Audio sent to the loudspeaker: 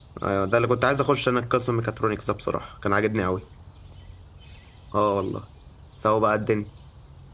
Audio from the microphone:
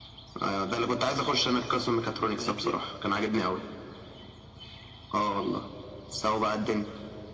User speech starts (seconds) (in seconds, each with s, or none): 2.4 s